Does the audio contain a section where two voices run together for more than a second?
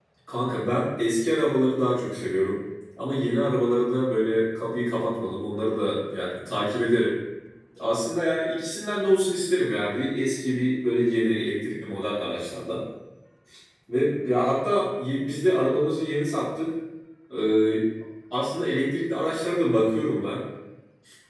No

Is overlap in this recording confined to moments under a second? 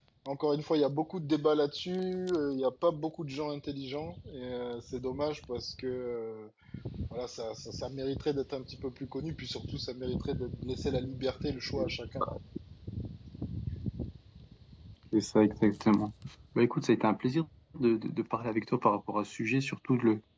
Yes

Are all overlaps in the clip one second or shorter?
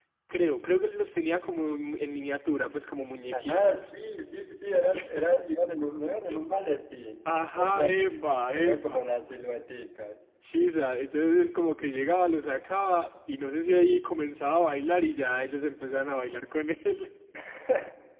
No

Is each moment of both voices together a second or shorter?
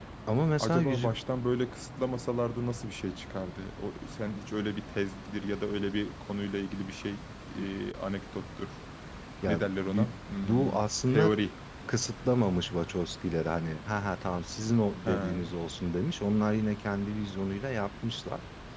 No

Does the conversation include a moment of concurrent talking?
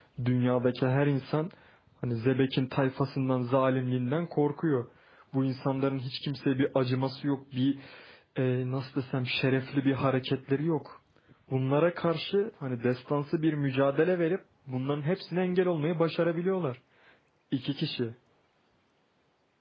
No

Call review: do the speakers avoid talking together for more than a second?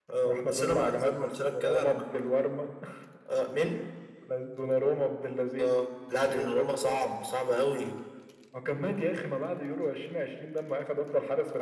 No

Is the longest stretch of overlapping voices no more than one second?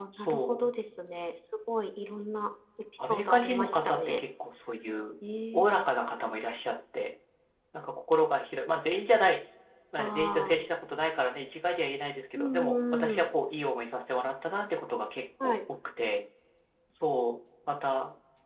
No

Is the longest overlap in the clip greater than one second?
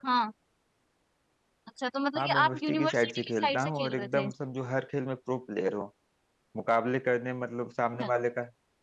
Yes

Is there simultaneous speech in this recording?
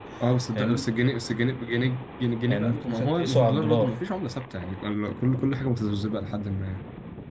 Yes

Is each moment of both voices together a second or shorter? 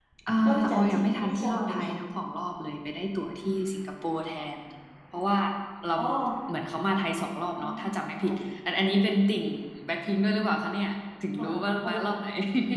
No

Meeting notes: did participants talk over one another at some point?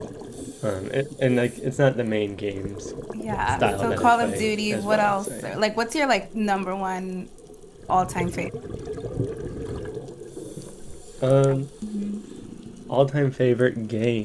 Yes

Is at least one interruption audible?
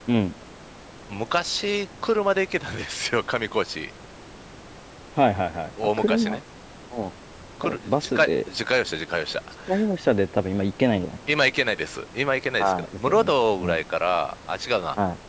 Yes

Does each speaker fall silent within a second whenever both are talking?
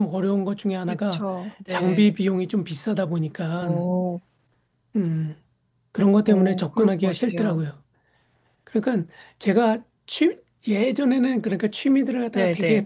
No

